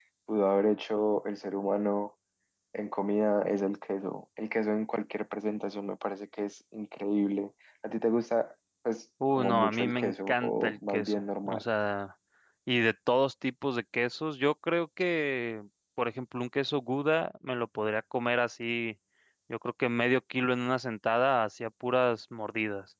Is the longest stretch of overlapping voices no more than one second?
No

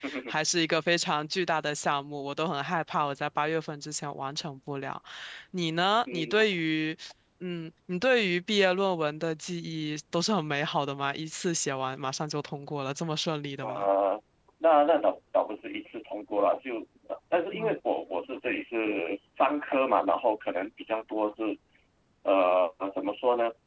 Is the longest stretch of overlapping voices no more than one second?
Yes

